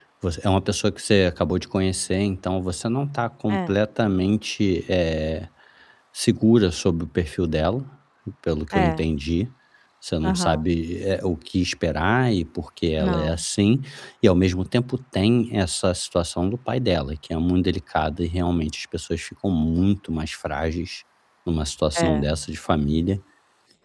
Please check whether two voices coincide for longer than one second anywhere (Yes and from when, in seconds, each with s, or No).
No